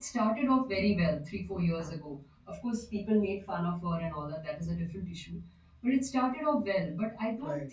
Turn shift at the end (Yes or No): No